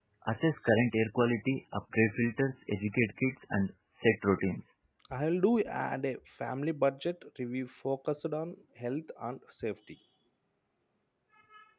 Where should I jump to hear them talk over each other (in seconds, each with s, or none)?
none